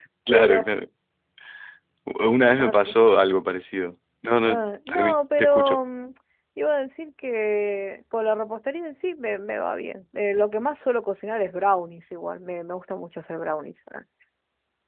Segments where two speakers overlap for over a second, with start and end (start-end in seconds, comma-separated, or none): 4.4-5.8